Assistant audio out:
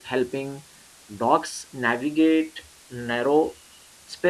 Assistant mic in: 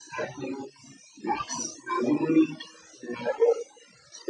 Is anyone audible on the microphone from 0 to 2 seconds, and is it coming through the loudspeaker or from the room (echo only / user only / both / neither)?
echo only